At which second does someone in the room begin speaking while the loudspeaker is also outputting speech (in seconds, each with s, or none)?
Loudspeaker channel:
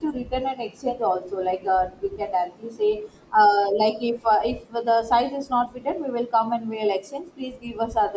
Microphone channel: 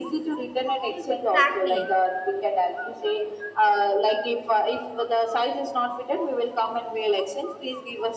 0.9 s